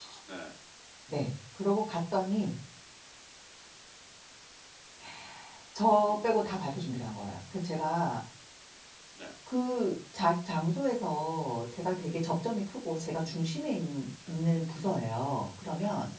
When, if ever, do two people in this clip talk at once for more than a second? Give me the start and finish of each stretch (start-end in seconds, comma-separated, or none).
none